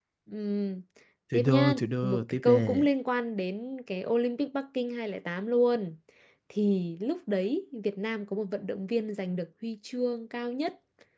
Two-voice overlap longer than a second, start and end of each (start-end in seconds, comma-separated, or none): 1.3-2.9